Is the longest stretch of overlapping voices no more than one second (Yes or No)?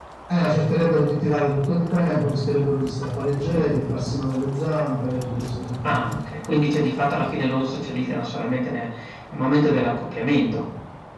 Yes